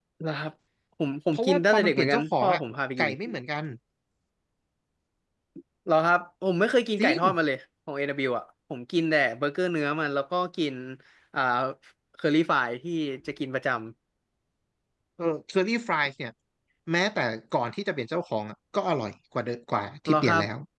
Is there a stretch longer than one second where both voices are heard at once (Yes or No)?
Yes